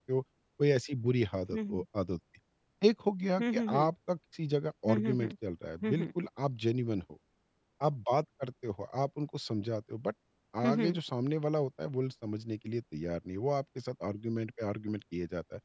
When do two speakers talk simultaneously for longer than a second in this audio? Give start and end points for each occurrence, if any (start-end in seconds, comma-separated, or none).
none